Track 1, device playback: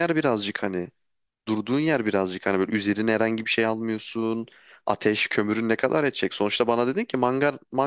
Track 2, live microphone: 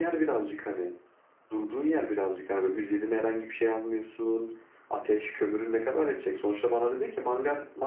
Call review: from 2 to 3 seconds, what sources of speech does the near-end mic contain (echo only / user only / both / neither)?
echo only